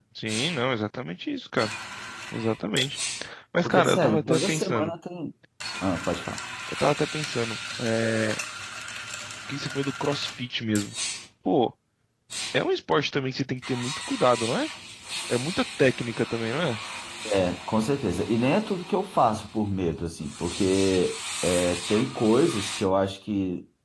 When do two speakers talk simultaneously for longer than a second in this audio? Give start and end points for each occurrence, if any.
3.6-4.9

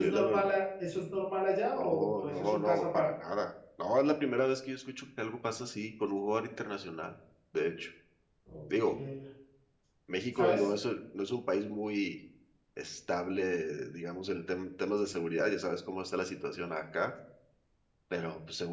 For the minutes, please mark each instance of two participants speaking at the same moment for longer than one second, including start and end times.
1.8-3.1

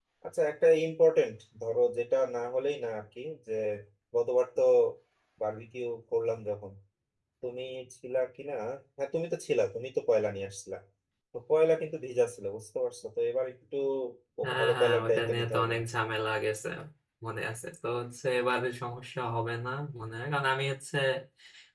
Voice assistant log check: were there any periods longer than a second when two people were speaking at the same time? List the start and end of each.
14.4-15.7

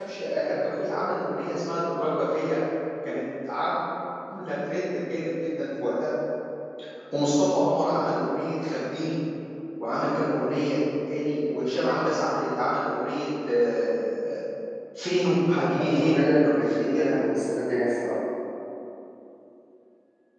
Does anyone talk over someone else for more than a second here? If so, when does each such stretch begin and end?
15.9-17.2

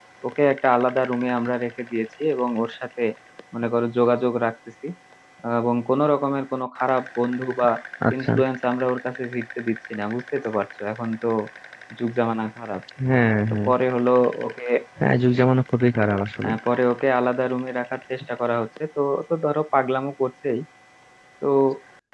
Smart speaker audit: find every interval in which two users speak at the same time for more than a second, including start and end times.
none

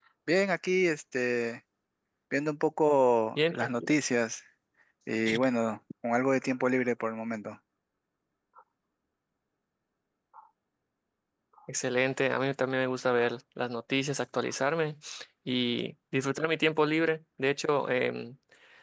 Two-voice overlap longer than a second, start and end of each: none

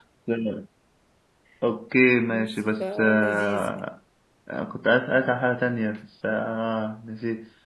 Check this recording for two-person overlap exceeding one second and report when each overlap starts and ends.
2.3-3.8

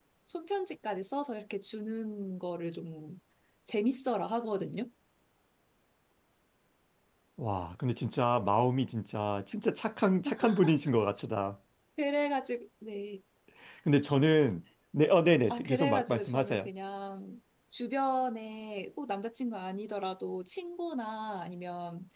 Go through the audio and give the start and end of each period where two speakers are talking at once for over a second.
15.5-16.7

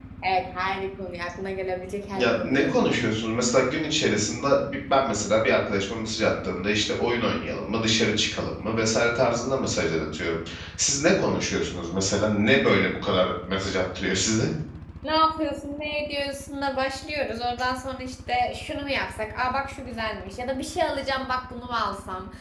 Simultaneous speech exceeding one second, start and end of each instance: none

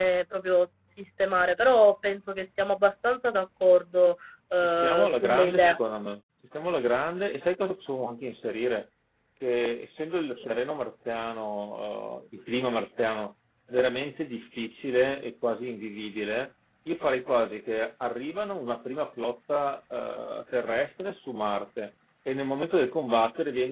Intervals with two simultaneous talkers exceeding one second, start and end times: 4.5-5.8

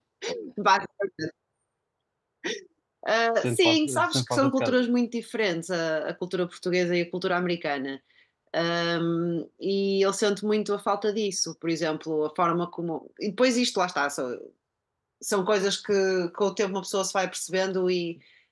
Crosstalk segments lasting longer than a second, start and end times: 3.4-4.9

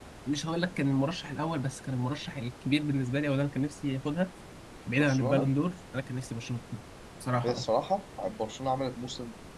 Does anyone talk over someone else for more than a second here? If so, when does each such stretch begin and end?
none

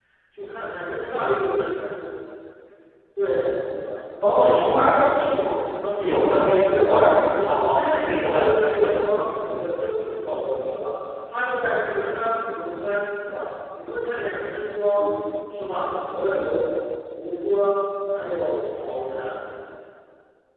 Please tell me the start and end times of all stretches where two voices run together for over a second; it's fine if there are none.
6.6-8.3

